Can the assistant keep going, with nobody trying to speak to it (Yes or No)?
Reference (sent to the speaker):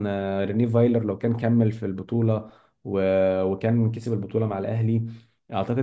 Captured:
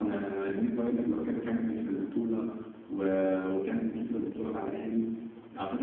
Yes